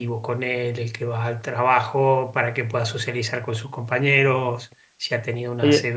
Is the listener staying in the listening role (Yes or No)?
No